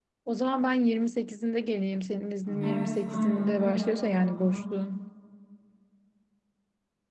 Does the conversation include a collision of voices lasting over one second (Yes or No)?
Yes